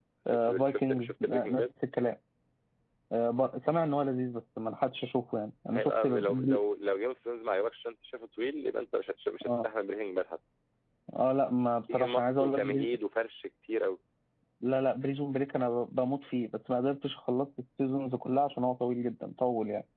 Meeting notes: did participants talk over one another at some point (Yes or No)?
Yes